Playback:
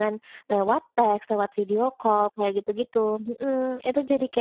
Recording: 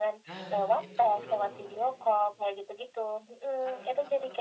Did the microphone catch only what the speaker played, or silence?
No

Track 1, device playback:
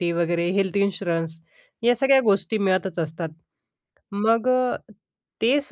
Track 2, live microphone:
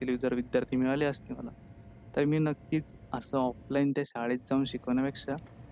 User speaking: Yes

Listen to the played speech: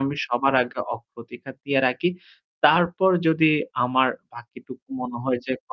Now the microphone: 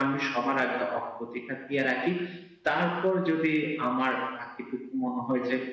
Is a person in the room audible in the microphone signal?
No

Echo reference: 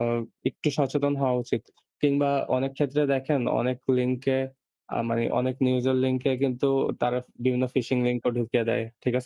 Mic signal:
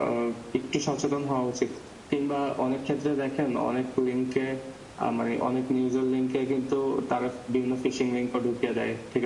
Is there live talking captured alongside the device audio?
No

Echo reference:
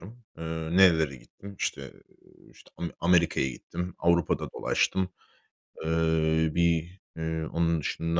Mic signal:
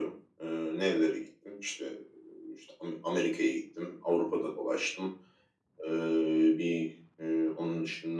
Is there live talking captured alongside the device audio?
No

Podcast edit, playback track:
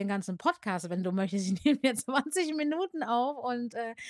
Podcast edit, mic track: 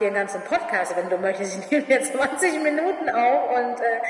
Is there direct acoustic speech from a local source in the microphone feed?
No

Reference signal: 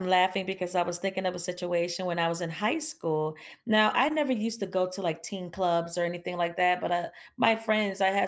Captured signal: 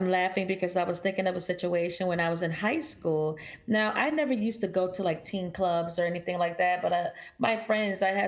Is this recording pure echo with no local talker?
Yes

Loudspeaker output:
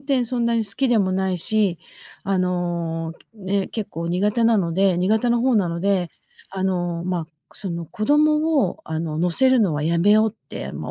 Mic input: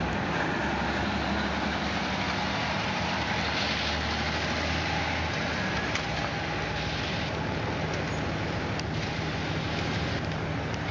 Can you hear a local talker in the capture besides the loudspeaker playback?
No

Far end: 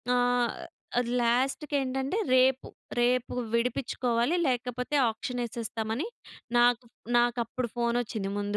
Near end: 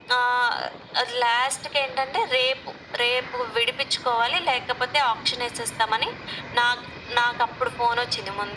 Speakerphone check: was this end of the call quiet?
Yes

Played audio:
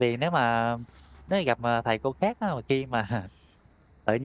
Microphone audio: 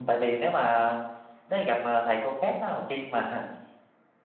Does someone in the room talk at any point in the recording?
No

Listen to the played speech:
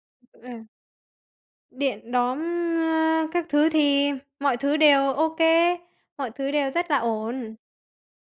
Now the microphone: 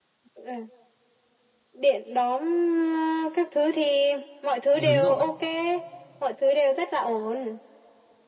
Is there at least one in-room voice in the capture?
Yes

